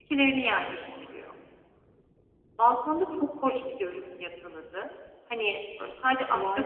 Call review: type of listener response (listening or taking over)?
listening